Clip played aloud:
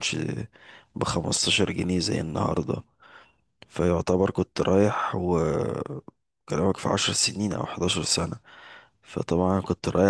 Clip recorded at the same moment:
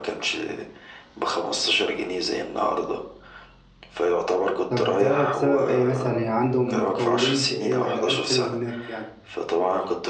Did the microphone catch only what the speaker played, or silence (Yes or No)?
No